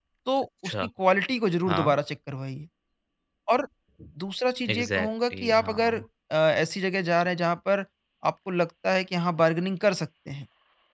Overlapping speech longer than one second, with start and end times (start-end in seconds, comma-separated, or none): 4.7-6.0